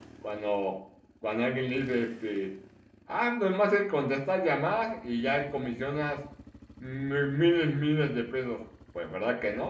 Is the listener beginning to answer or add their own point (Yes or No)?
Yes